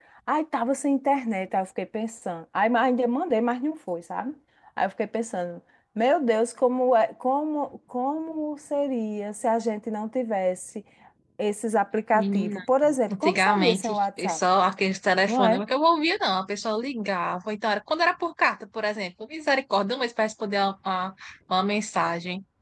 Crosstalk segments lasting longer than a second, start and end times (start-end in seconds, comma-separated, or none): 13.1-14.4